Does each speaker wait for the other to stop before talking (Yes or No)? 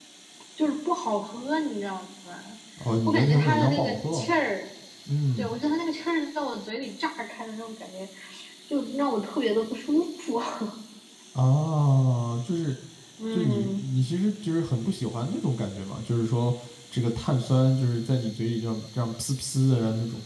No